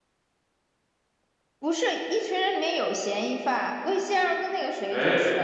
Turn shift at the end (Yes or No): No